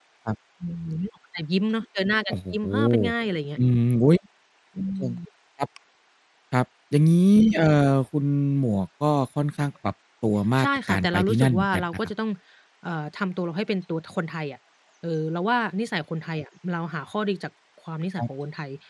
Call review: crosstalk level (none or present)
present